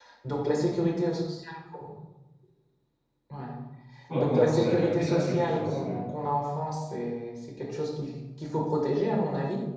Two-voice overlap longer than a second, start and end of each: 4.2-6.0

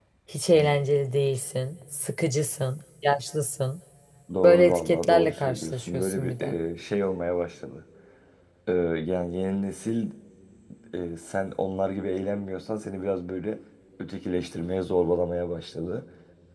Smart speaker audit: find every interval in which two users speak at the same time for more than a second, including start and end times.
4.4-6.6

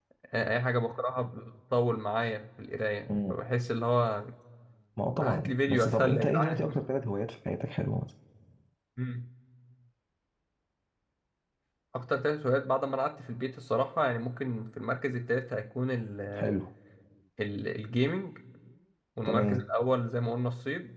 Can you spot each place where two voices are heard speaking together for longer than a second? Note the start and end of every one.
5.2-6.8

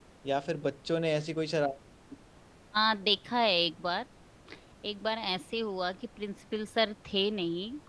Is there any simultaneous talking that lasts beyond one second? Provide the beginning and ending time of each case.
none

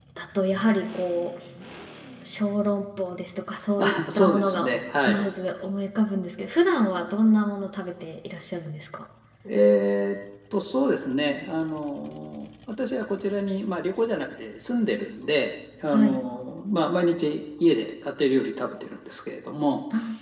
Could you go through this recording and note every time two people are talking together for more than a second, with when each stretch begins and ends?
3.8-5.2

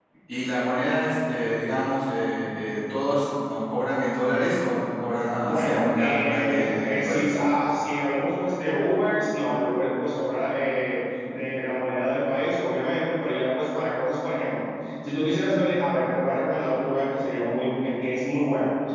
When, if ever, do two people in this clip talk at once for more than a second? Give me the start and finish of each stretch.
5.3-7.3

